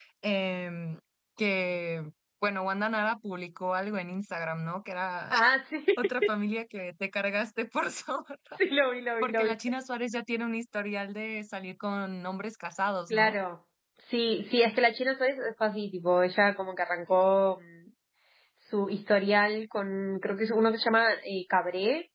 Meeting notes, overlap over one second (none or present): none